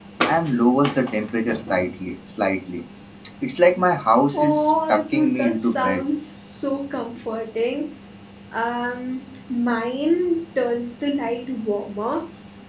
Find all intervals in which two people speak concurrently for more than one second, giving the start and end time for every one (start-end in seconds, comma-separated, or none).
4.3-6.0